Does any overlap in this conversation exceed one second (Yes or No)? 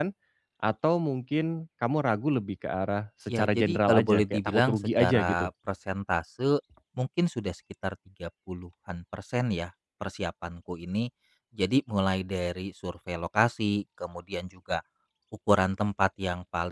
Yes